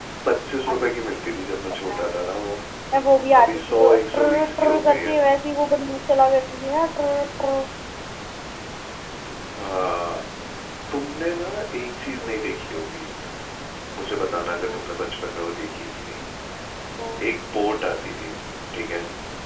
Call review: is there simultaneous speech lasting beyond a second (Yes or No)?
Yes